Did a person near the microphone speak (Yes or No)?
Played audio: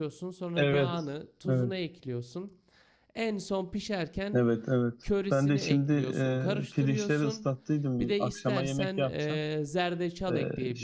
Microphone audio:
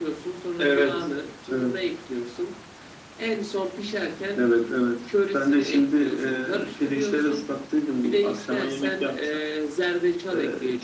No